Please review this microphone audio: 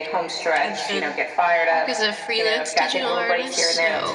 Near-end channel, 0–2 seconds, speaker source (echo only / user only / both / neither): both